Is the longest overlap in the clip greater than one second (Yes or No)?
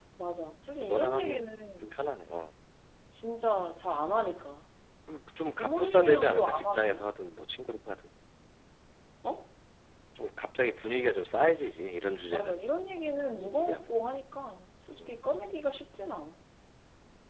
Yes